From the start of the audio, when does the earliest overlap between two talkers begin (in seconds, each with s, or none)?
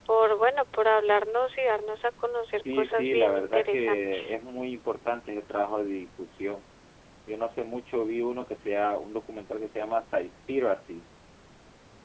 2.6 s